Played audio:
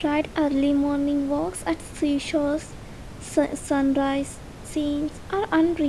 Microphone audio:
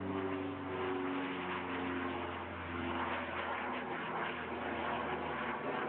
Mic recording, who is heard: neither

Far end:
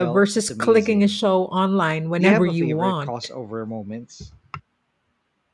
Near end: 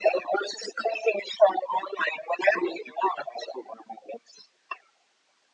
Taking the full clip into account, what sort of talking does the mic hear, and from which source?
echo only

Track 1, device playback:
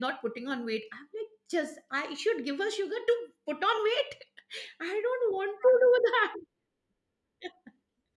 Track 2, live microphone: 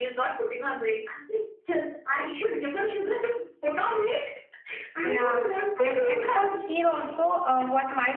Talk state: both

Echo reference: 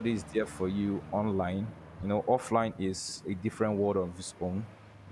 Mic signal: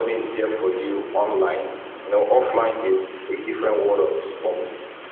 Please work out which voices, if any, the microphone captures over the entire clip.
echo only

